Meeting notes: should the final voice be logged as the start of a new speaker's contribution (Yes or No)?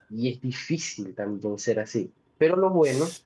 No